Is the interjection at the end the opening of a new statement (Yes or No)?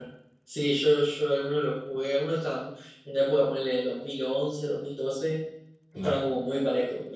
No